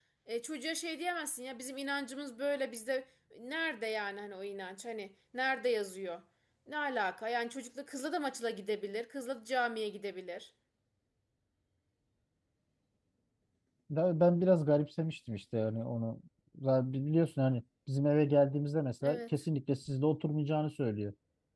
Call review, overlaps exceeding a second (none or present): none